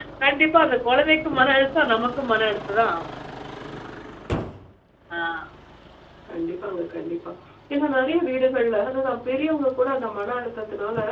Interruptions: none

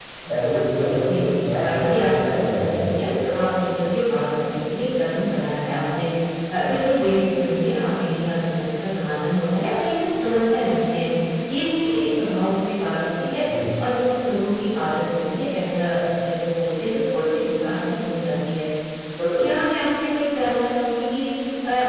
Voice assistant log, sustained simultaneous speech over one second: present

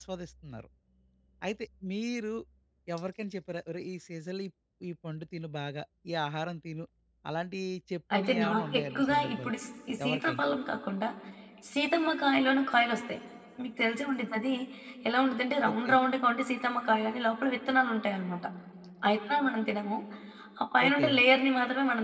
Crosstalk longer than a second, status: present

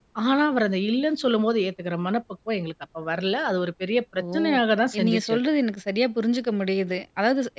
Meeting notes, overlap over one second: none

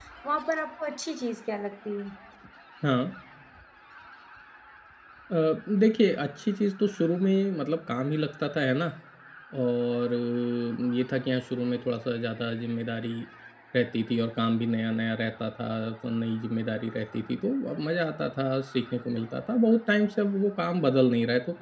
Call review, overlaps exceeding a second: none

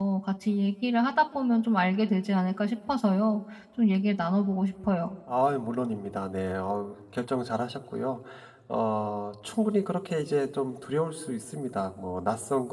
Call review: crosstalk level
none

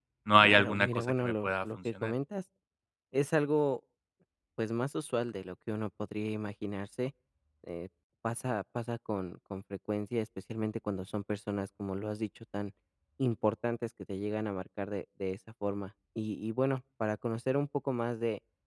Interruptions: present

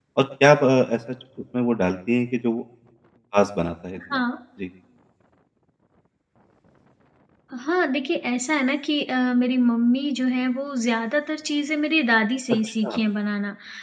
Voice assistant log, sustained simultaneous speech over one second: none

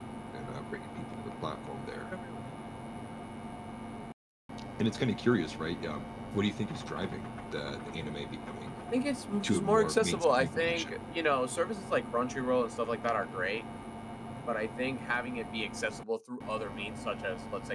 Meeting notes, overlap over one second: present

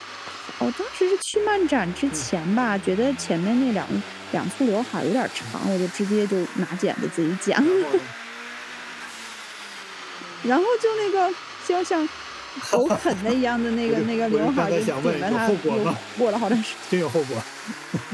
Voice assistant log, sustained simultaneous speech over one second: present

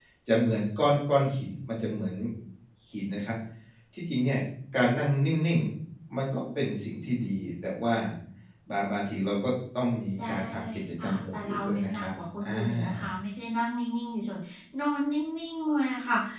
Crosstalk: present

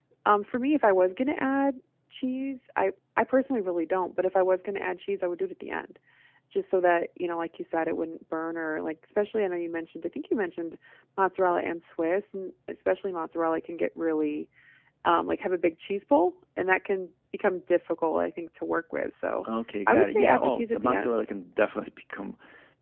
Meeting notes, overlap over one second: present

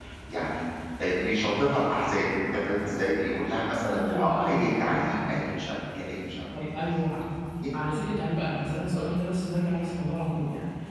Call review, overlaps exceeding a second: present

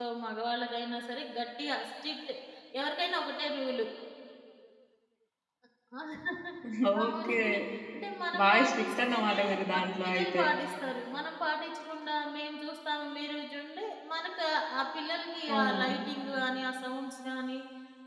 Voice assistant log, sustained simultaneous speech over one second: present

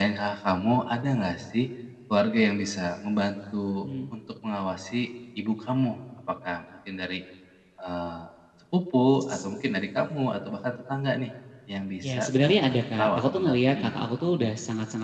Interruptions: present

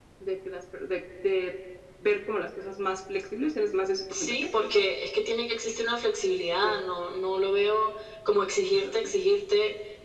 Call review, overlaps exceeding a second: none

